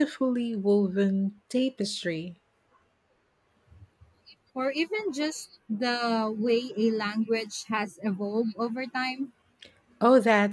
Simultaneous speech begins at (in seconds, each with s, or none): none